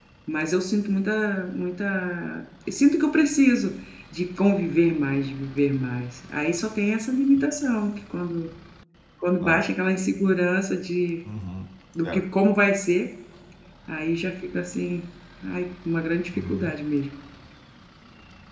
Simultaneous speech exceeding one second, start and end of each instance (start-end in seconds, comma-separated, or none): none